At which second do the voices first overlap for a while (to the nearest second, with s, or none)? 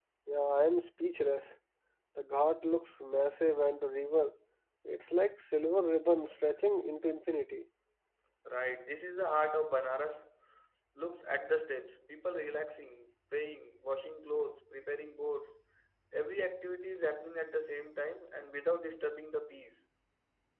none